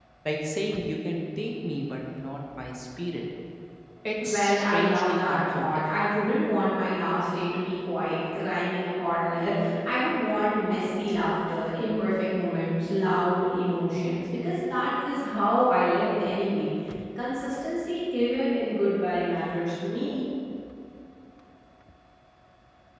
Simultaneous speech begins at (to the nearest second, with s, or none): 4 s